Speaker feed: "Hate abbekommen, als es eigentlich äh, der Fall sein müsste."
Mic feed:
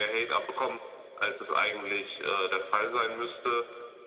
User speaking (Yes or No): No